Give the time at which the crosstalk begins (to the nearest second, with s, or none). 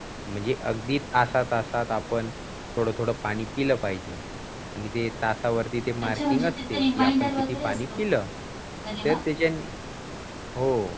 6 s